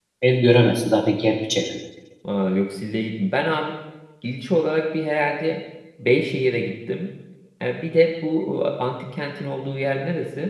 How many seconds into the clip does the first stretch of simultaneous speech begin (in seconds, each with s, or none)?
none